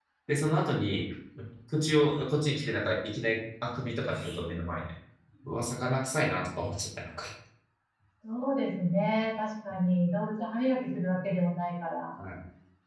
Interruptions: none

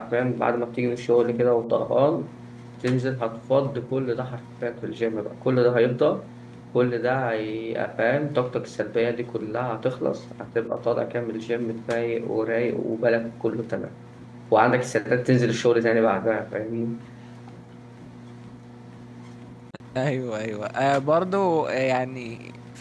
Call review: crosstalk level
none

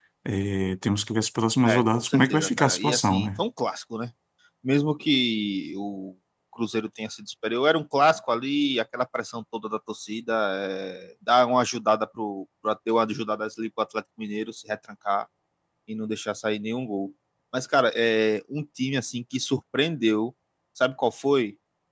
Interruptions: present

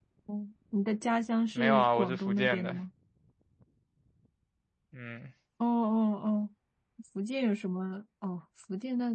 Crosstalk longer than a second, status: present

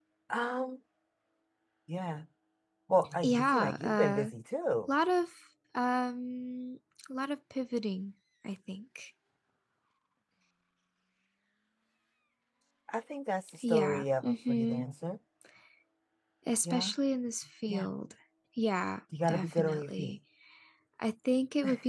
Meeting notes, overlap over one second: present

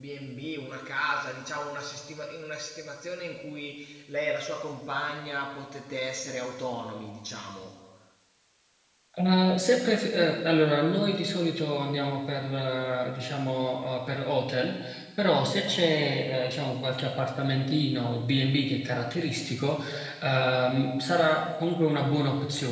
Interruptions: none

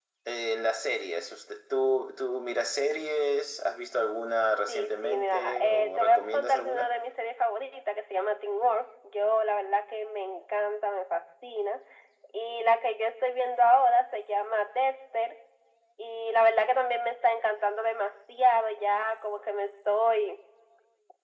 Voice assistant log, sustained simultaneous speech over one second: present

